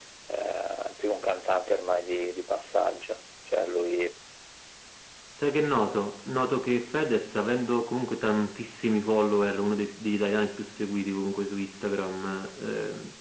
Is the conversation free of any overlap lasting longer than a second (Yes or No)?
Yes